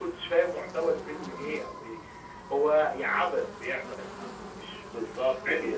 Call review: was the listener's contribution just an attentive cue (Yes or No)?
No